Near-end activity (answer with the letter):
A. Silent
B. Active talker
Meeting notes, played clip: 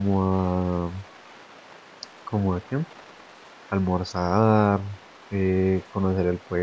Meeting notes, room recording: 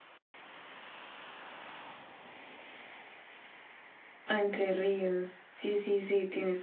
B